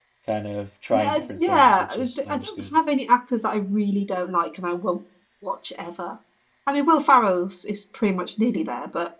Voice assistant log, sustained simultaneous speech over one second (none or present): present